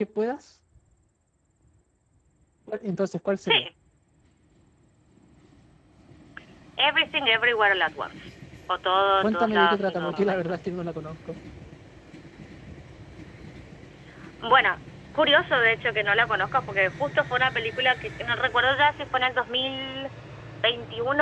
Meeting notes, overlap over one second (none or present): present